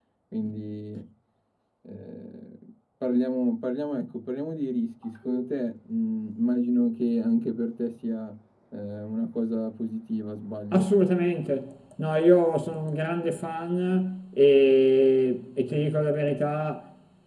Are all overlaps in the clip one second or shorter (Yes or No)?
Yes